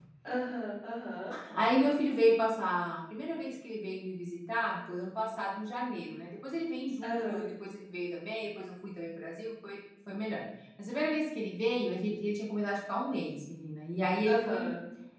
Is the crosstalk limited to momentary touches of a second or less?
Yes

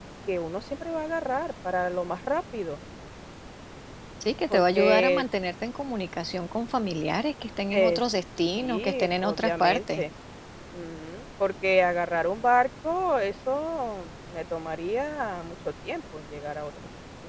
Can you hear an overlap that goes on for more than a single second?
Yes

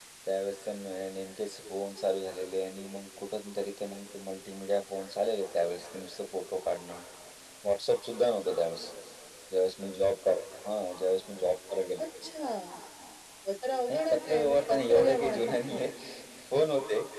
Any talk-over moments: Yes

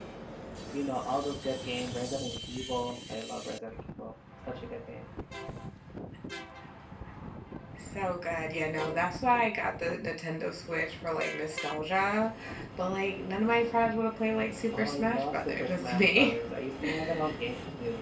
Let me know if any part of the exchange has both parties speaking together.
Yes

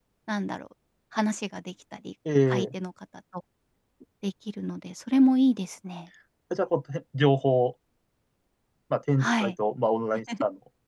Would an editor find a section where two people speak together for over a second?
No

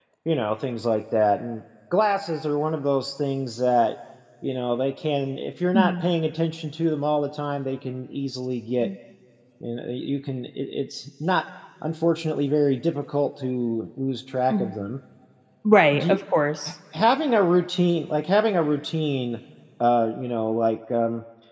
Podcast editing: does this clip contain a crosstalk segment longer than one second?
No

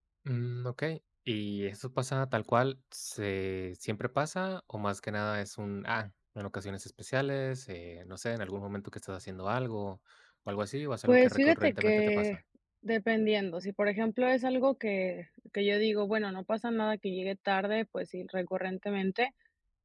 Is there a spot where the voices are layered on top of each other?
Yes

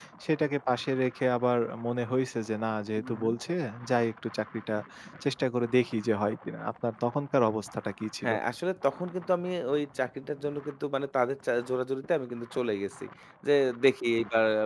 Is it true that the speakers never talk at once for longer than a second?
Yes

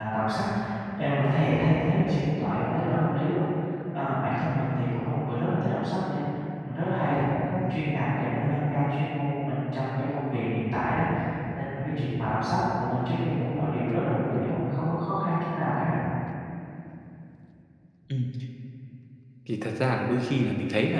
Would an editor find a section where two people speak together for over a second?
No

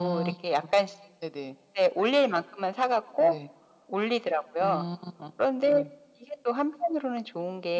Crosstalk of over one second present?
No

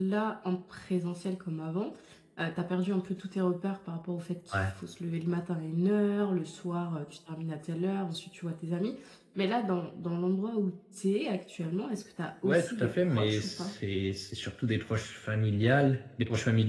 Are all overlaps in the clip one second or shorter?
No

